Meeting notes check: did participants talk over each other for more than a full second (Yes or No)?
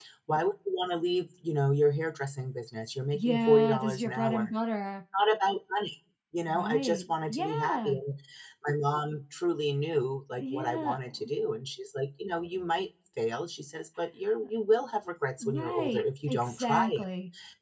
Yes